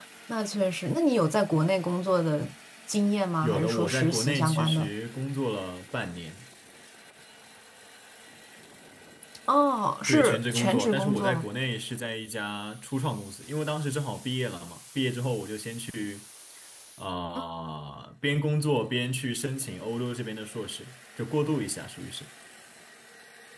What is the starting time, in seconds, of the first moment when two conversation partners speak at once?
3.4 s

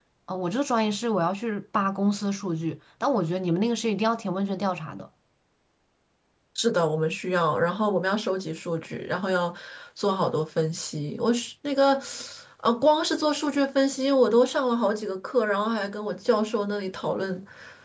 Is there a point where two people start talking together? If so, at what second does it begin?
none

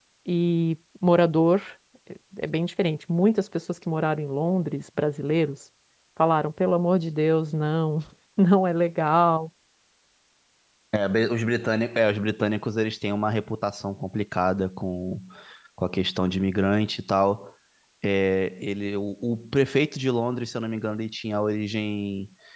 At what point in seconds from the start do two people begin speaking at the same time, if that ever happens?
none

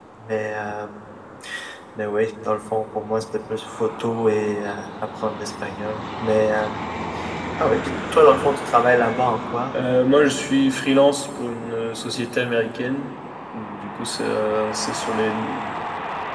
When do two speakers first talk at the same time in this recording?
none

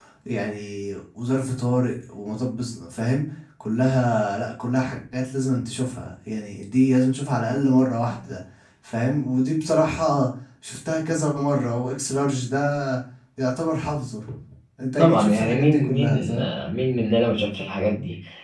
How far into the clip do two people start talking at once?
15.0 s

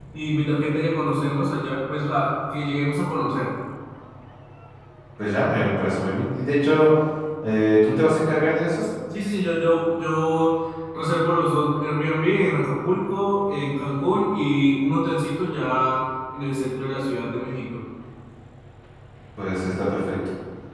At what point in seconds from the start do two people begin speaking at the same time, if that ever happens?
none

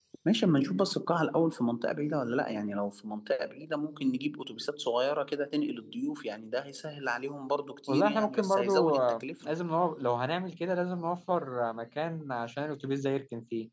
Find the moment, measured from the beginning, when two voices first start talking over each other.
7.9 s

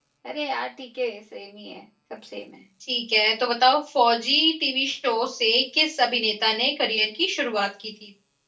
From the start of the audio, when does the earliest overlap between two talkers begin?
none

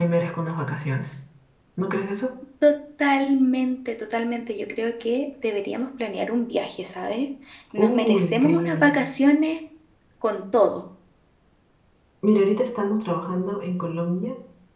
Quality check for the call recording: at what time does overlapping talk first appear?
7.8 s

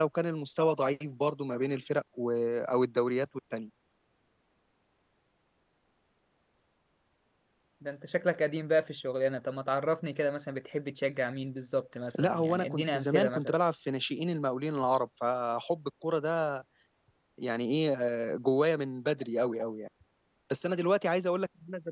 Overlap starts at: 12.1 s

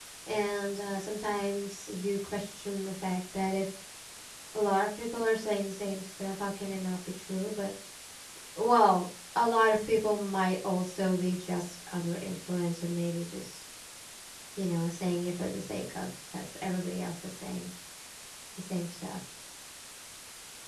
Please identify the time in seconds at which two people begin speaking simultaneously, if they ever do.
none

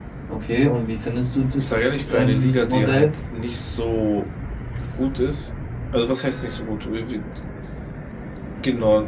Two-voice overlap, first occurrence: 1.6 s

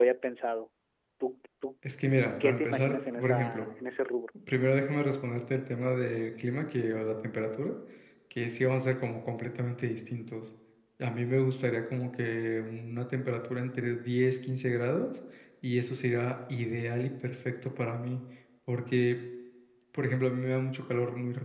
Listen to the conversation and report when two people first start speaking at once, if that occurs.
2.4 s

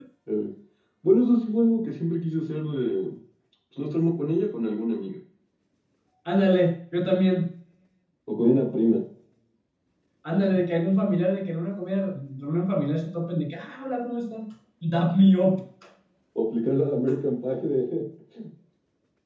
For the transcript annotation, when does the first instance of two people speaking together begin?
none

